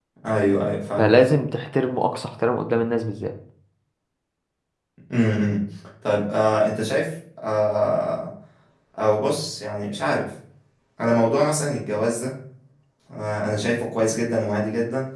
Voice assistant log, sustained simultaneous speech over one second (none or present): none